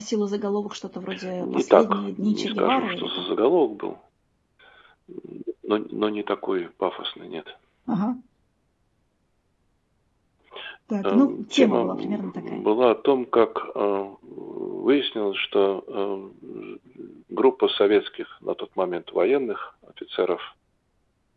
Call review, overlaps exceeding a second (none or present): present